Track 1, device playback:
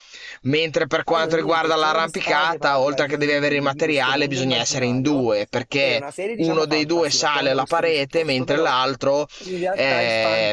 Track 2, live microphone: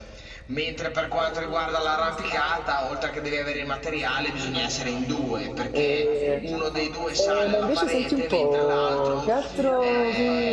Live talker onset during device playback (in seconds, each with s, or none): 5.7 s